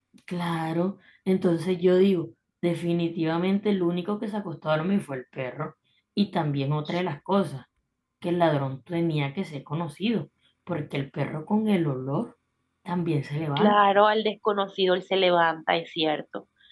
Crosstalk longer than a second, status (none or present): none